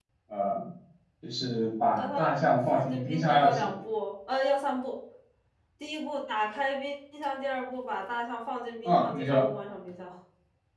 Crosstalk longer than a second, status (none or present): present